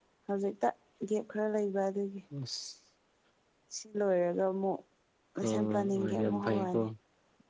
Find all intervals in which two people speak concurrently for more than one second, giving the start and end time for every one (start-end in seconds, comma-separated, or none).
5.5-6.8